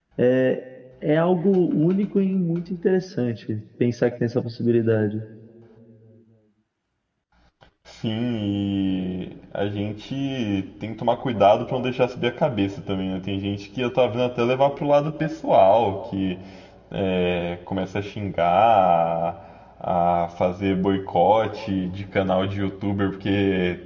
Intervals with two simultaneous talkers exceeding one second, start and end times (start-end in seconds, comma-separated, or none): none